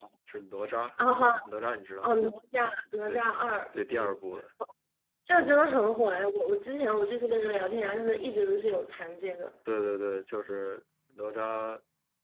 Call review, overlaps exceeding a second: none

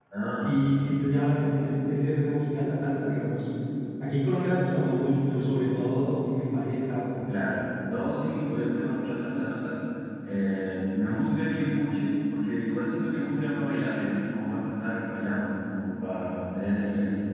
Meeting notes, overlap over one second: none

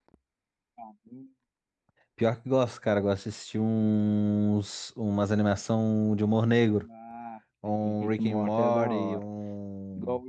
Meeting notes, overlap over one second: present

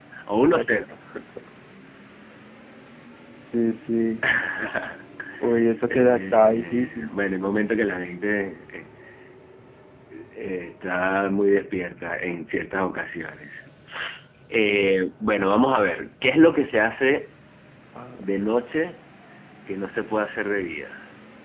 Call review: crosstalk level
present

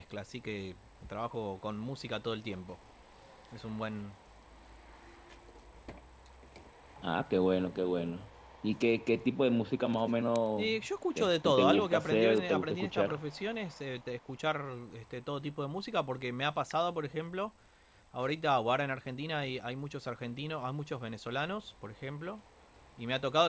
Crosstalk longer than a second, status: present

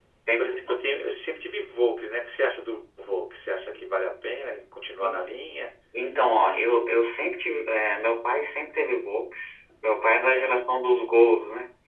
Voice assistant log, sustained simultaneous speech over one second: none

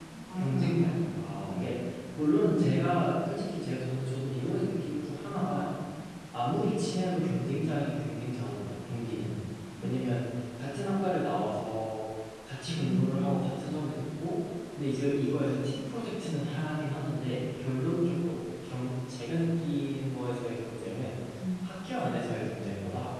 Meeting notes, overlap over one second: present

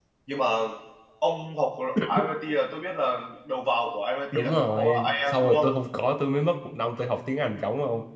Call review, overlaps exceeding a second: present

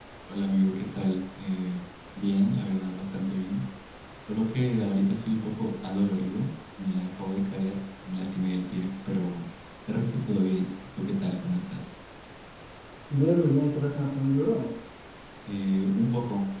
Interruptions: none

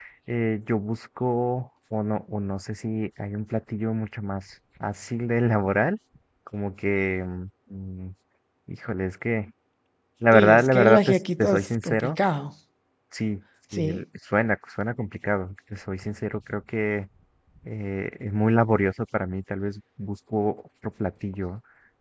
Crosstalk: present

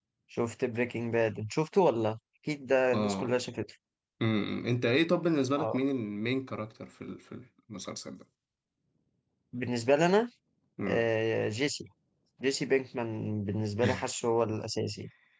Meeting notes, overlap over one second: none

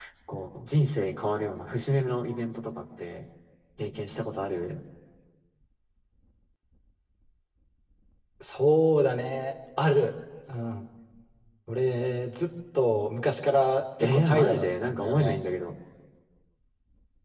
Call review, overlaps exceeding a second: present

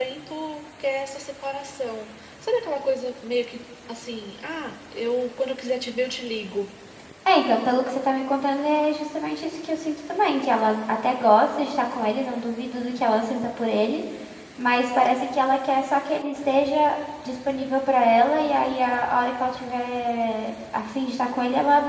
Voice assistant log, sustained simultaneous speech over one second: none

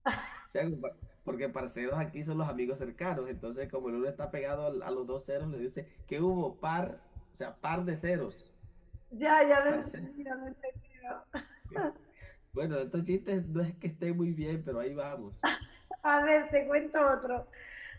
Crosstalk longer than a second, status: none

